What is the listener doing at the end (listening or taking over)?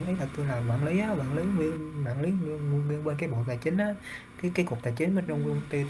listening